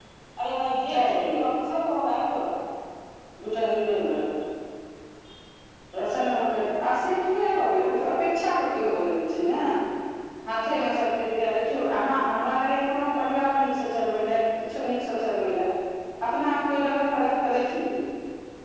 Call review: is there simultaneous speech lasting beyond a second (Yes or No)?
No